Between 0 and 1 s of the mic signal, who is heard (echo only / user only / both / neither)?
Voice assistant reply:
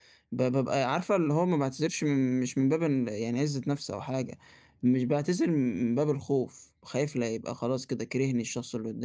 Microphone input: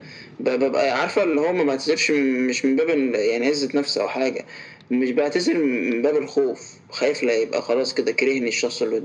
echo only